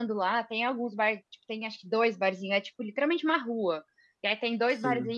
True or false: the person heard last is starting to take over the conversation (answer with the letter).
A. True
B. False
B